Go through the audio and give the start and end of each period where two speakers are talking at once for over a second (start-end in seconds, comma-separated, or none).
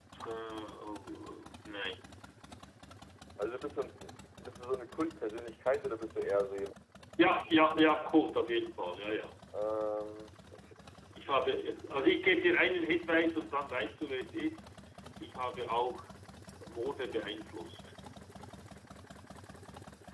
none